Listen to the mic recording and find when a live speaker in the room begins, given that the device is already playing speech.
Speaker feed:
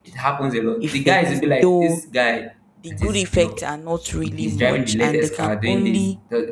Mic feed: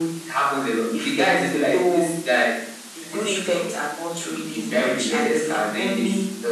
none

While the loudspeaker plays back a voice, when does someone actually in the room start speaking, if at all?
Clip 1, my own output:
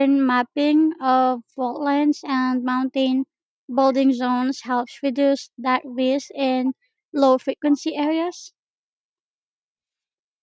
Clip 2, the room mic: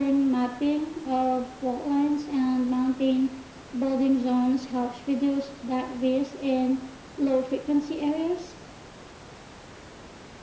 none

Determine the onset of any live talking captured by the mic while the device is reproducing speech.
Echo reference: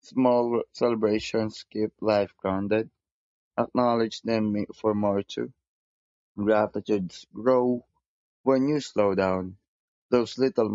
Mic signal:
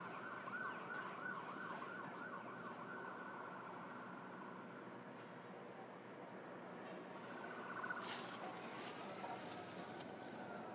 none

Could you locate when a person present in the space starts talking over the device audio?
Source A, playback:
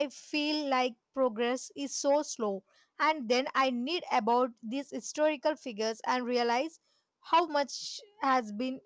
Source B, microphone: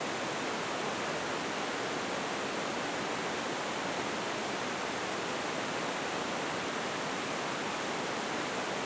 none

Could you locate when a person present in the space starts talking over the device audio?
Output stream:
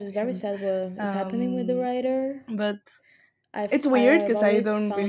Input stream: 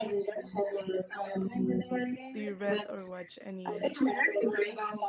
2.3 s

